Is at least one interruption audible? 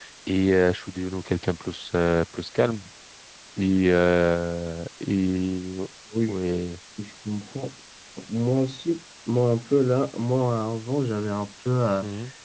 No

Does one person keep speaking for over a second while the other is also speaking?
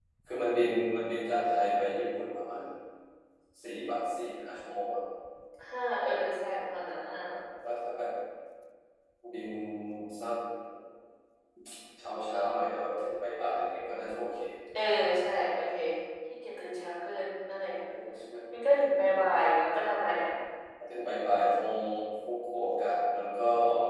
No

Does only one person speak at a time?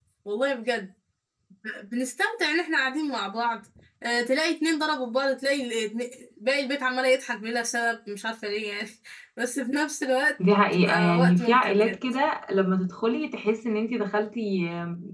No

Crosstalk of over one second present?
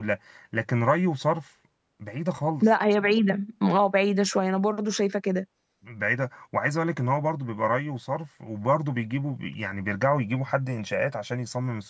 No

